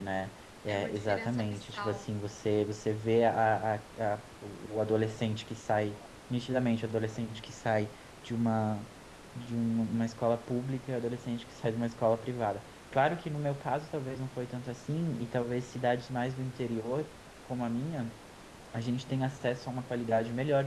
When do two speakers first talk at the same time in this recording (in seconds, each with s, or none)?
0.7 s